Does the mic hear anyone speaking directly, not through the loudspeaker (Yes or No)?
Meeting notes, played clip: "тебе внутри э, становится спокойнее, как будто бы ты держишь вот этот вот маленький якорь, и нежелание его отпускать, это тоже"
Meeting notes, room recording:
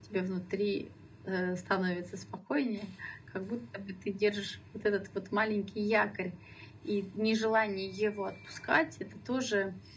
No